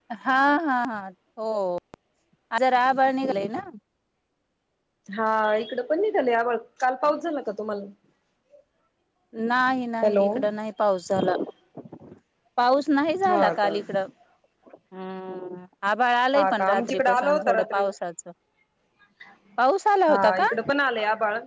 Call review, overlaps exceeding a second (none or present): present